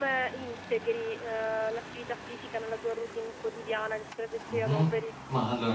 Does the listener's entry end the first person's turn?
Yes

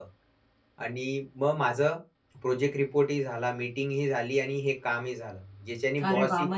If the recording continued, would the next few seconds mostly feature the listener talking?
Yes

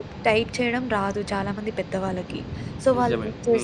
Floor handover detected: No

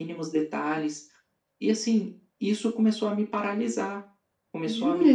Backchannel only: No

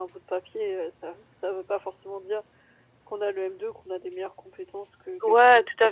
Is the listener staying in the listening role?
No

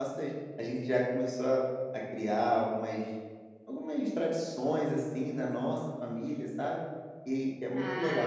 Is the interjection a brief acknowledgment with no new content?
No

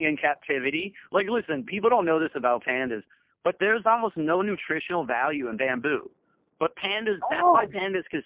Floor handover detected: No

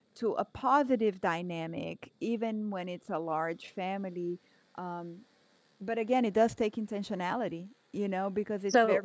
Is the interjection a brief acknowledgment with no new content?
Yes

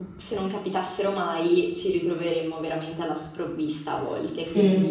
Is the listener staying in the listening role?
No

